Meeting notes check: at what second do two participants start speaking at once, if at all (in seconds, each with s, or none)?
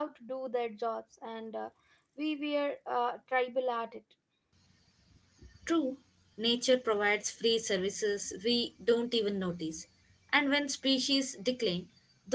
none